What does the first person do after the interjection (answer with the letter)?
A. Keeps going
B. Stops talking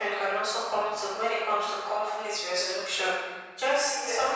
A